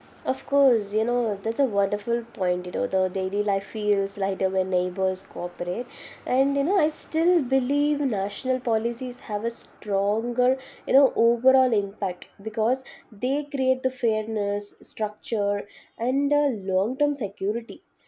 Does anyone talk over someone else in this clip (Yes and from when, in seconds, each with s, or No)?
No